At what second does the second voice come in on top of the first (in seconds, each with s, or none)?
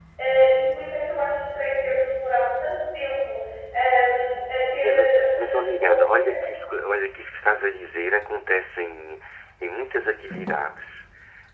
4.8 s